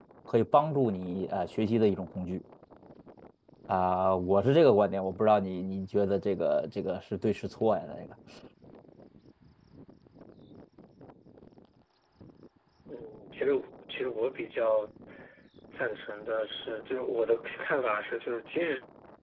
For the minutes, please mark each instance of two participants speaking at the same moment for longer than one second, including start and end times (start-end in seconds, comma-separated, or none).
none